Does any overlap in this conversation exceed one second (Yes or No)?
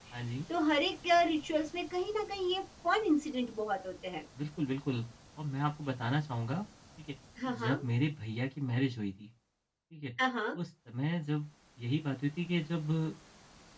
No